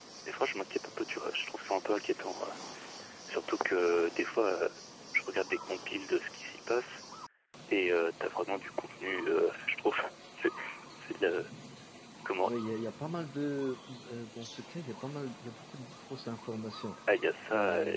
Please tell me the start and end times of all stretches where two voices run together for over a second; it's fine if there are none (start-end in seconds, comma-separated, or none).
none